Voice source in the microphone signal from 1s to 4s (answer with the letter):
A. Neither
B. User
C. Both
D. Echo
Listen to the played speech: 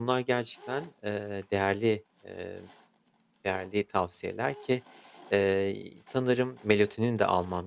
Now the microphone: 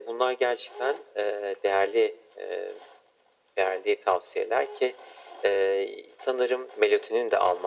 D